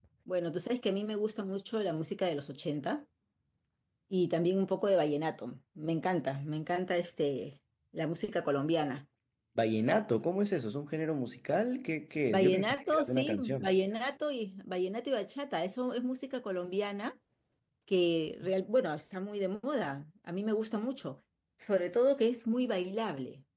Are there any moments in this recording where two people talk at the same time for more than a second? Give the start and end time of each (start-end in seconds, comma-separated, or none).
12.3-13.7